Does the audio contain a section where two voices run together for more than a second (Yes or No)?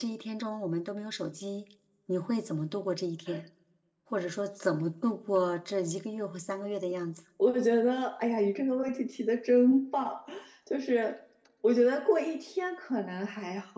No